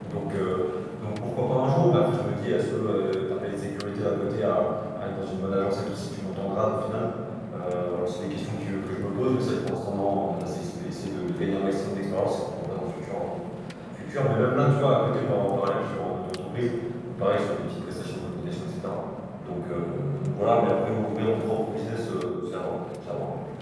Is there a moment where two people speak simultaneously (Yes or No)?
No